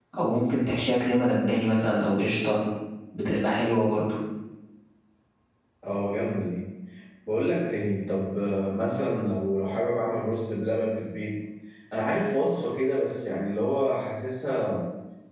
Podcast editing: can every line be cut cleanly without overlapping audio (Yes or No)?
Yes